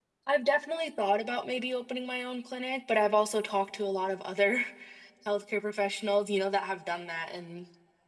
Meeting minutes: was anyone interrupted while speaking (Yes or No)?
No